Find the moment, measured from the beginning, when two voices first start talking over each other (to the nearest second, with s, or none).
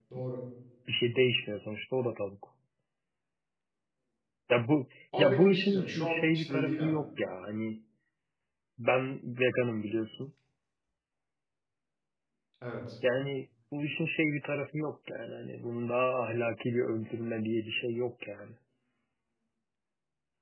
5 s